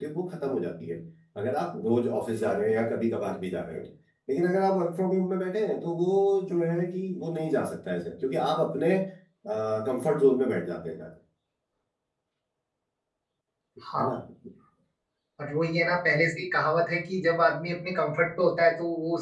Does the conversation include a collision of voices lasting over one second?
No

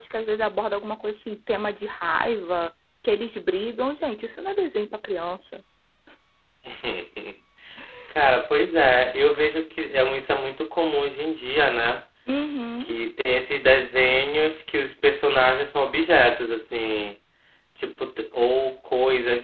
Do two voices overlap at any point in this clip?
No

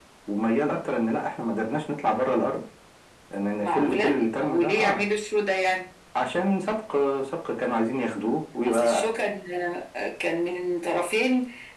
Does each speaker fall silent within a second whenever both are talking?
No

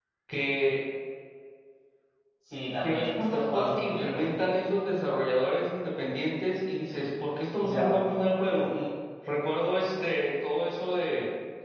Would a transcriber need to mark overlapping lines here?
Yes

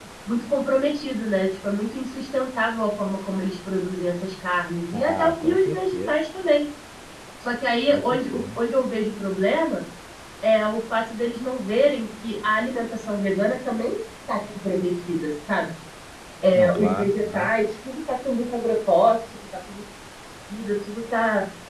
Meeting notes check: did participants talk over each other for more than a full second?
Yes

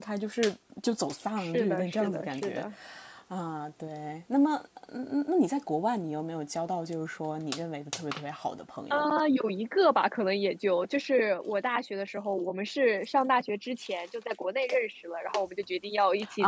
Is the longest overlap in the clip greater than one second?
Yes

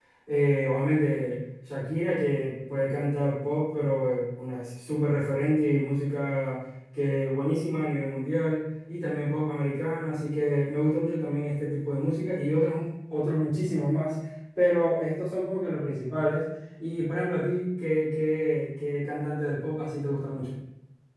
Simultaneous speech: No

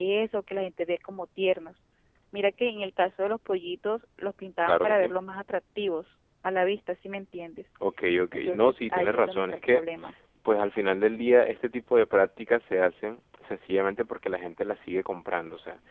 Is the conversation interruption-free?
No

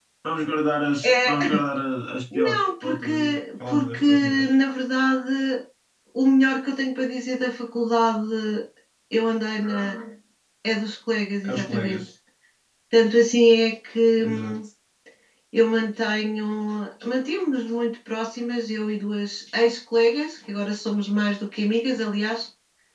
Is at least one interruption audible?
Yes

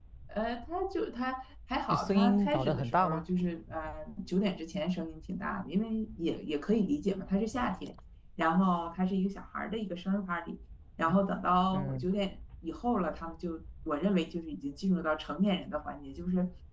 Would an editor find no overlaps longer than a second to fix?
No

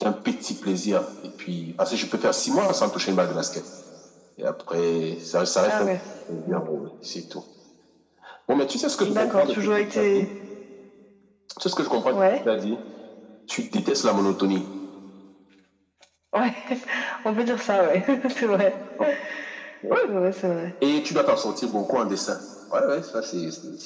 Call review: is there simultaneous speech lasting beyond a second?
Yes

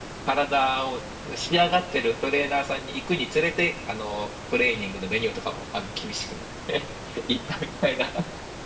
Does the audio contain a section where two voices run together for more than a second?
No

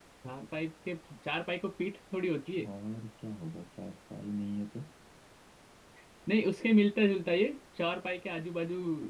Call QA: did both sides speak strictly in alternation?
Yes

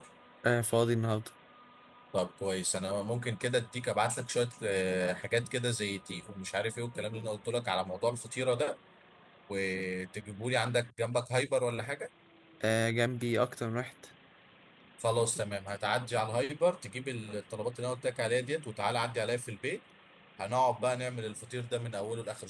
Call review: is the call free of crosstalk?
Yes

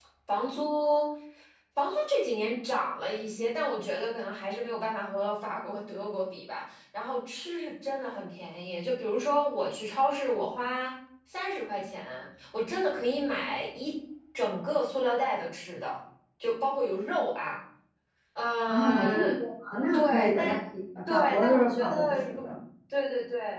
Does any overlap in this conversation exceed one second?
Yes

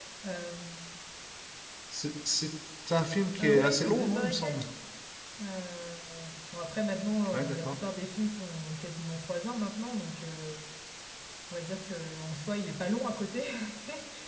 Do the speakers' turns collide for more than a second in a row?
Yes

